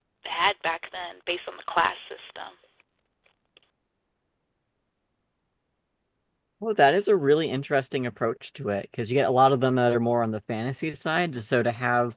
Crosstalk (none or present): none